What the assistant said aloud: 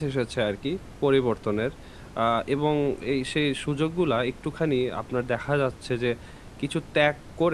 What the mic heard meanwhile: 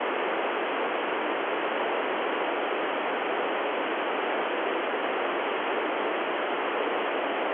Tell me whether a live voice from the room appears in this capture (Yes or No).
No